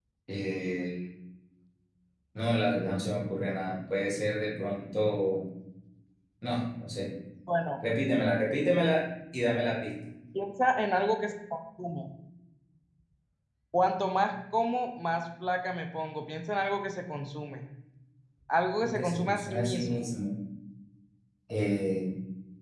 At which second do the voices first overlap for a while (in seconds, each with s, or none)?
18.8 s